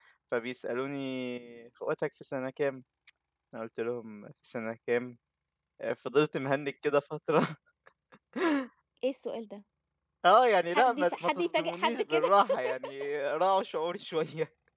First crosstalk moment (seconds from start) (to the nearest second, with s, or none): 11 s